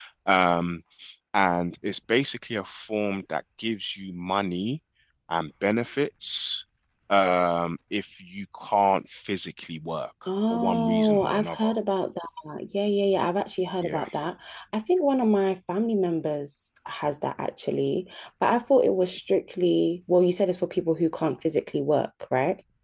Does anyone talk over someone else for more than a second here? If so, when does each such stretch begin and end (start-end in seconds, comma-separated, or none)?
10.5-11.7